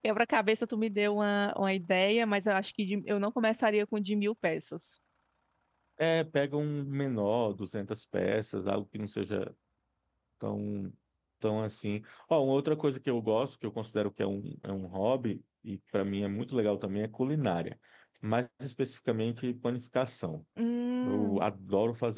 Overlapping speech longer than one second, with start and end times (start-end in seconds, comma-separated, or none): none